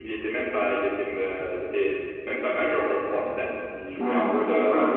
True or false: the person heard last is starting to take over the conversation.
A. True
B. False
A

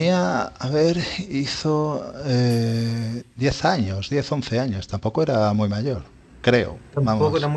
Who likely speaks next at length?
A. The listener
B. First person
A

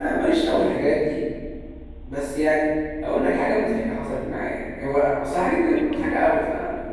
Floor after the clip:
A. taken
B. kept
B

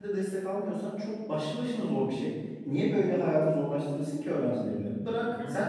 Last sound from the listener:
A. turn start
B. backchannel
B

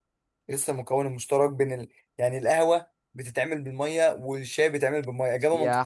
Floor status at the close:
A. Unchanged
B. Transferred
B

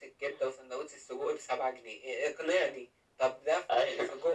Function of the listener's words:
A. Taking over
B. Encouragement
B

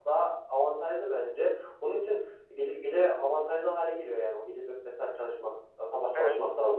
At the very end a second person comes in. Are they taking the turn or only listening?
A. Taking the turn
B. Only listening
A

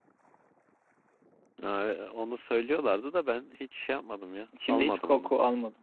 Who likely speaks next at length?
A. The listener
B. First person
A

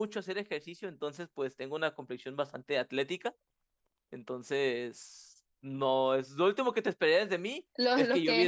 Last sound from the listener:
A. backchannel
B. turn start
B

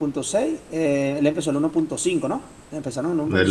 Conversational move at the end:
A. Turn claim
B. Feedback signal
A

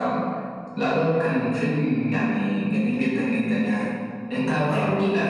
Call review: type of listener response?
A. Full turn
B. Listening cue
B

